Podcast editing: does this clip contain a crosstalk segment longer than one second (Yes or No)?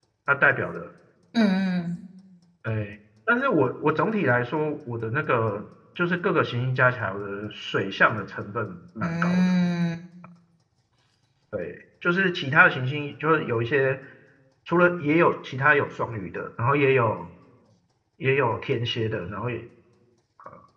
No